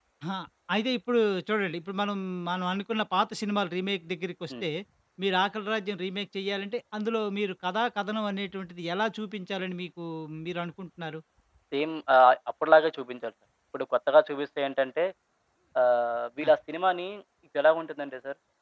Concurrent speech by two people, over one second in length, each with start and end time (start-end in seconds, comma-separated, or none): none